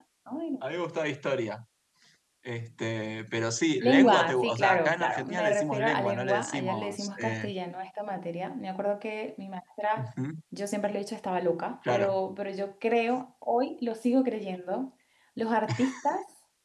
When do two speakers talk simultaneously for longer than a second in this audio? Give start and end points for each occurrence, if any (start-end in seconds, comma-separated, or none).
3.8-7.5